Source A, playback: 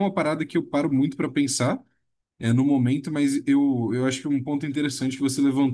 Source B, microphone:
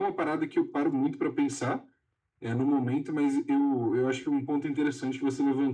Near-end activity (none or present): none